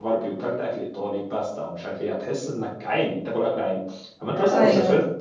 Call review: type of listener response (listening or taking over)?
listening